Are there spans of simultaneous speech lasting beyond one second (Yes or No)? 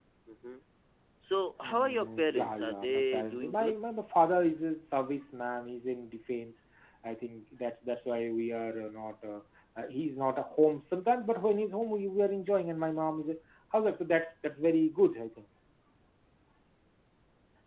Yes